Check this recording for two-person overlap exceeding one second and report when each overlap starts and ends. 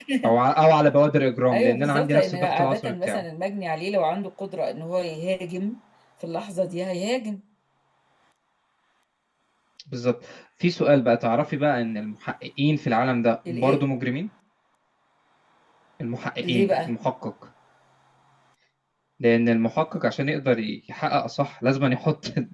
1.5-3.2

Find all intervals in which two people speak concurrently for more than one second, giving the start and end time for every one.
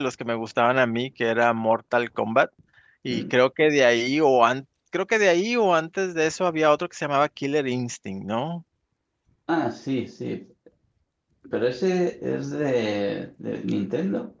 none

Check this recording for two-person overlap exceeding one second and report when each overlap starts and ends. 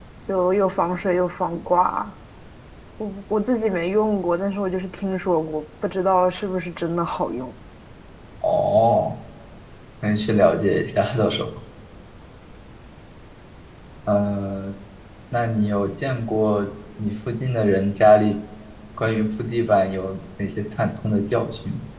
none

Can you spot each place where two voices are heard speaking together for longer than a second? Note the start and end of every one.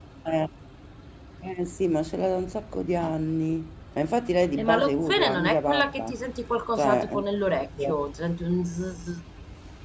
4.6-6.1

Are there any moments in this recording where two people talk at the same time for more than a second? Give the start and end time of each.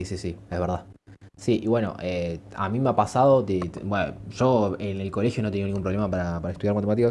none

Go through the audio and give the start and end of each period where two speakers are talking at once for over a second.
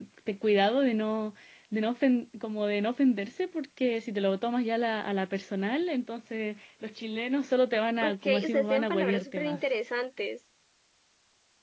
8.0-9.6

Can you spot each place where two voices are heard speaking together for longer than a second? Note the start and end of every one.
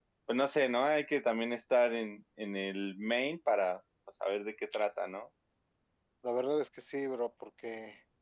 none

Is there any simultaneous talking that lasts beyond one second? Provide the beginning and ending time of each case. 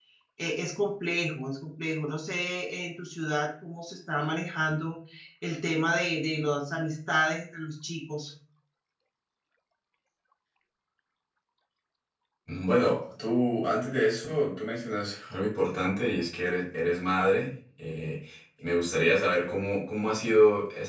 none

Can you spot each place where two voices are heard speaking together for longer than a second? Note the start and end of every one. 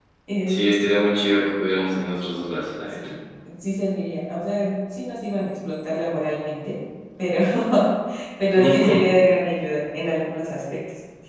none

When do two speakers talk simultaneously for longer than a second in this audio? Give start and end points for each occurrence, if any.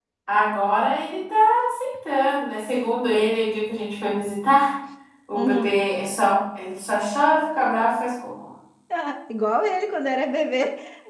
none

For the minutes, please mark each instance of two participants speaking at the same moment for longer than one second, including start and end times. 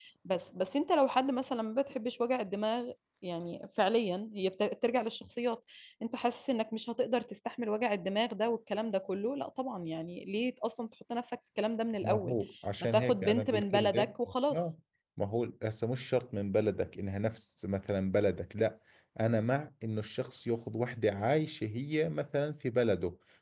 12.8-14.1

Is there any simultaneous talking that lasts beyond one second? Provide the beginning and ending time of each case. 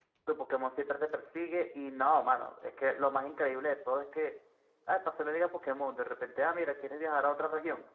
none

